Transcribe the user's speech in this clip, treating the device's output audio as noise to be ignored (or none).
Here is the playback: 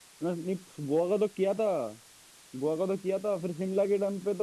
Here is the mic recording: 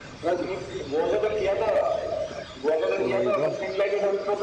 वही तो